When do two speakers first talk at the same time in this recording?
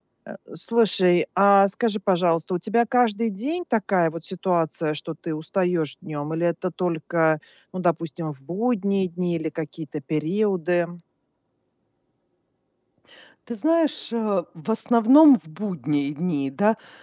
none

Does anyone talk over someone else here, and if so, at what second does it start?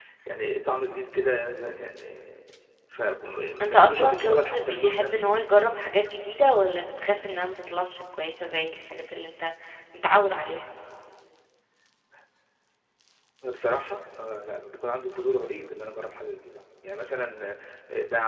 4 s

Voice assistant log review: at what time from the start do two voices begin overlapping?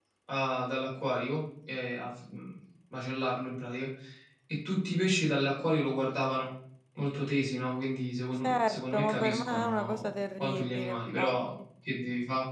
8 s

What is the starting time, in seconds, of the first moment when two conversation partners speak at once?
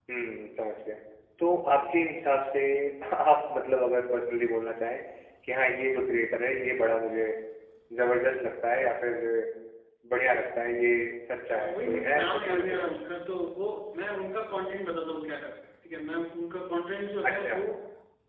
12 s

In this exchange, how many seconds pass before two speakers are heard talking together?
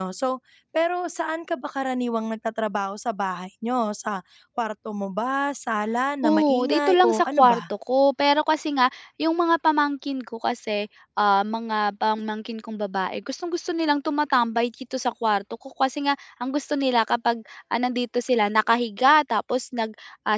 6 s

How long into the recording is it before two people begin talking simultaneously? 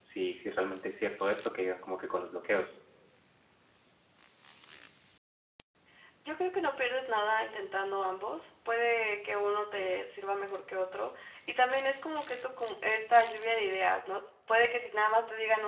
none

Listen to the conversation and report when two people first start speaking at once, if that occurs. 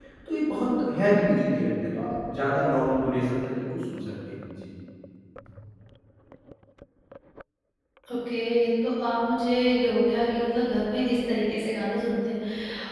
none

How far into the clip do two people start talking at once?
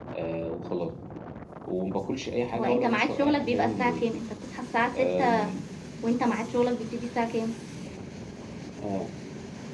3 s

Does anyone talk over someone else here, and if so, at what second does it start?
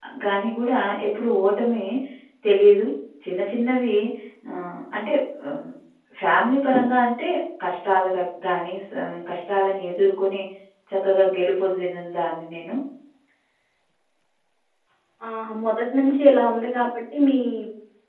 none

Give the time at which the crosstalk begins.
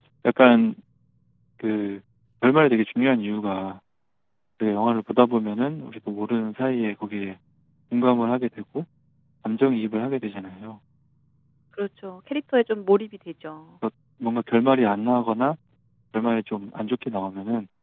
none

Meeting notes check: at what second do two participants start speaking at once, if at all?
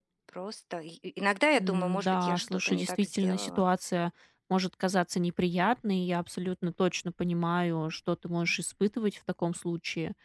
2 s

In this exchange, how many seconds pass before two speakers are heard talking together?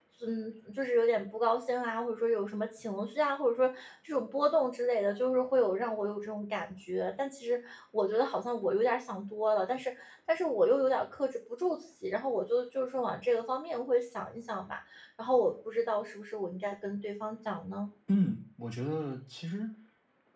none

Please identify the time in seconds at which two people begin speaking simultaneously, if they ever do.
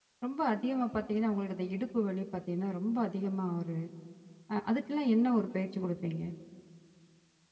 none

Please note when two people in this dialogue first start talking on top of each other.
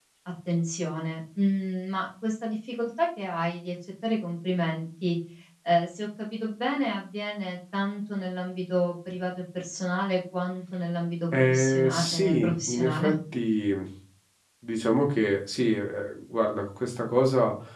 11 s

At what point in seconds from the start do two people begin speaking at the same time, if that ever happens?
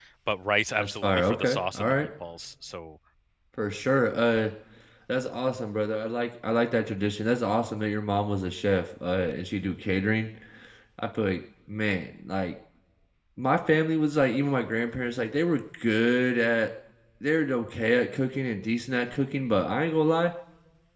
1 s

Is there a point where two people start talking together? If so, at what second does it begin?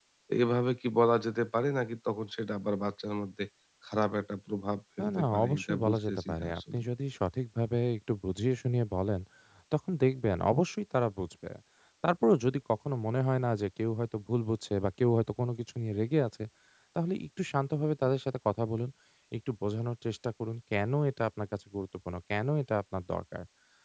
5 s

